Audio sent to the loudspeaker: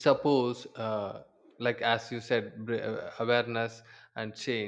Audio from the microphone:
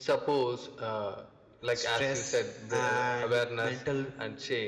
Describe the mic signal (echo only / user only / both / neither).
both